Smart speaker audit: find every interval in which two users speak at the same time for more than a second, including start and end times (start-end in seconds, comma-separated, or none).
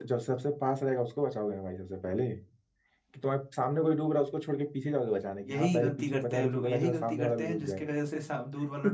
5.5-7.8